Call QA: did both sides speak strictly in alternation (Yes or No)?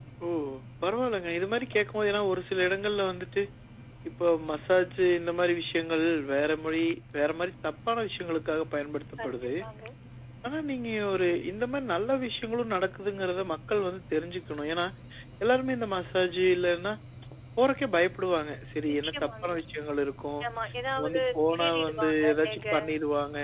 No